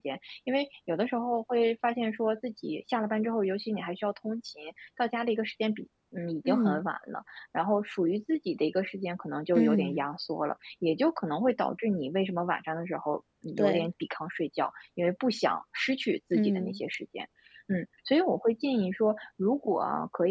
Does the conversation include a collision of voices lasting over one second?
No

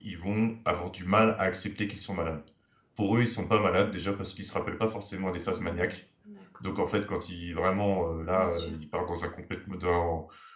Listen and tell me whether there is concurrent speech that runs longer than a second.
No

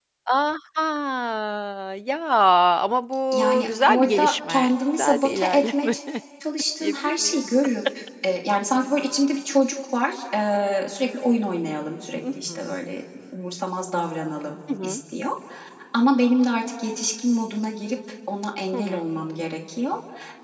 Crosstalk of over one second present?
Yes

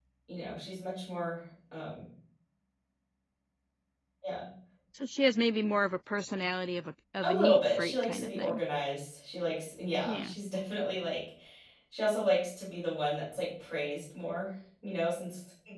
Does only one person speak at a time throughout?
No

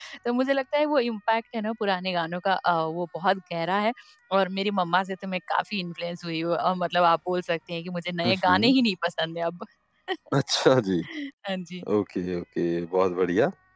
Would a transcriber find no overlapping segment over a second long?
Yes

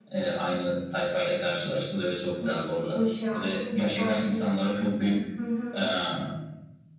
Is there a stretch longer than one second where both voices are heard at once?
Yes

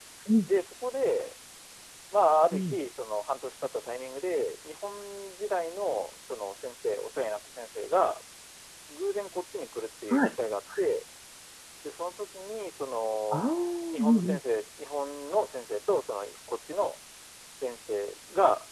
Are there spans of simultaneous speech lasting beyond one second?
No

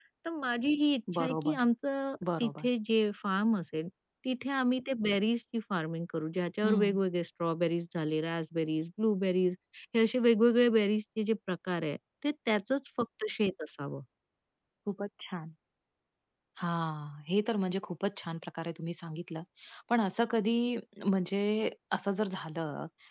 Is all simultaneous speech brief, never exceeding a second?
Yes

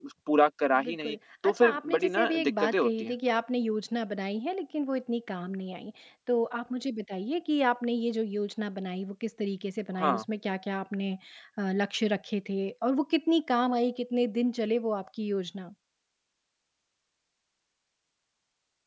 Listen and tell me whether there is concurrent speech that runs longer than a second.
Yes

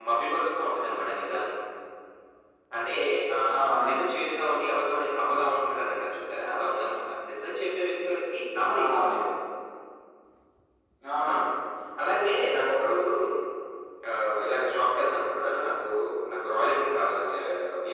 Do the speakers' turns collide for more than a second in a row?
No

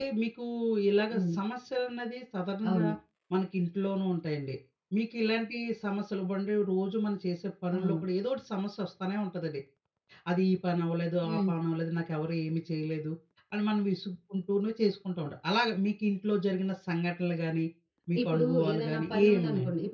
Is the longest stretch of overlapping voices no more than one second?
No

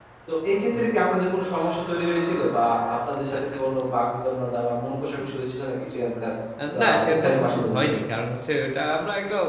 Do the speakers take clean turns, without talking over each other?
No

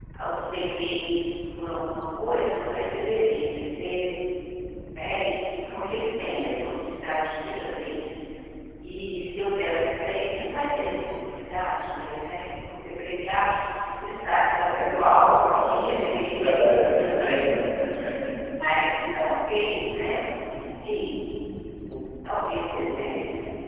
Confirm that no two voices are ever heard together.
No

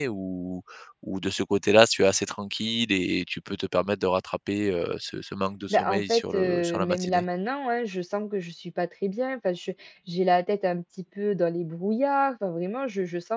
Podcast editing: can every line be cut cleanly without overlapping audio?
No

